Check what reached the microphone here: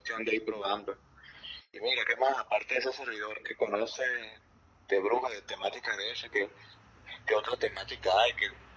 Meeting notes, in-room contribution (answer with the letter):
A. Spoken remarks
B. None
B